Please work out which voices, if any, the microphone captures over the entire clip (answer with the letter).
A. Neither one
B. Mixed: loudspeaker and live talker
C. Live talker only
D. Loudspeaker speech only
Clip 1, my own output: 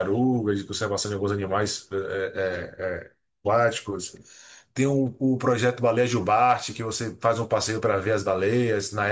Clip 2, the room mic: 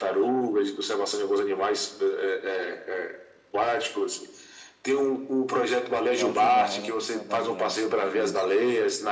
B